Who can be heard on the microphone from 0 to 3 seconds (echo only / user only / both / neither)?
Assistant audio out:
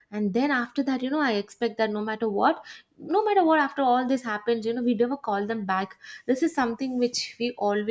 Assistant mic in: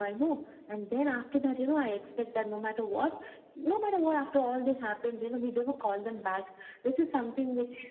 echo only